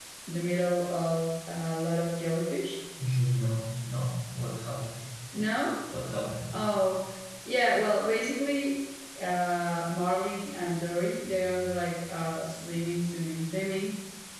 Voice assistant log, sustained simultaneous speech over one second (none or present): none